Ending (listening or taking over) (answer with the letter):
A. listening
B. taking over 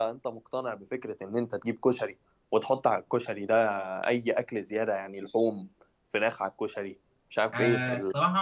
B